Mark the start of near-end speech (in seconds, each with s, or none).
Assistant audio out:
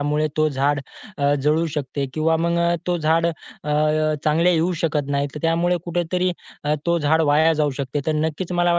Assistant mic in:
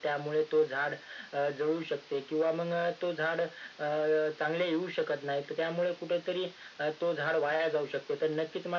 none